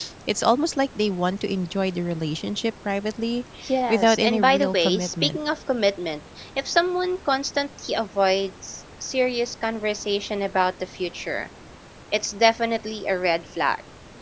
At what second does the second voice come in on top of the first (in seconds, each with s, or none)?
3.9 s